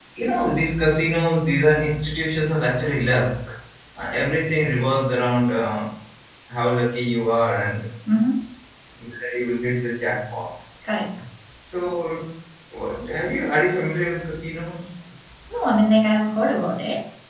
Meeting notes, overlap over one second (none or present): none